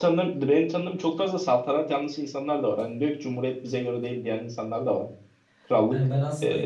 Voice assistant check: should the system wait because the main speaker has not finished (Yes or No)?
No